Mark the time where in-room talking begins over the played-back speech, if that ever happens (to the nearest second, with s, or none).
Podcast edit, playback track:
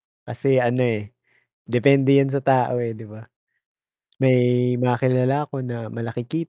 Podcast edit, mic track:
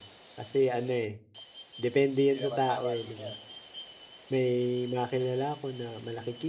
2 s